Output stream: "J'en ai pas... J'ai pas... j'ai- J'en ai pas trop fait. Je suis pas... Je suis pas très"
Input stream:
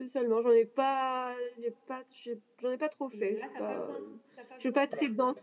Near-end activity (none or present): present